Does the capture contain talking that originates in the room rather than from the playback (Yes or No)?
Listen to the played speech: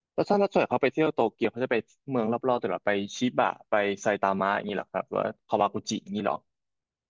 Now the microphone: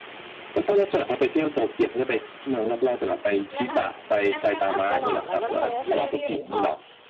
Yes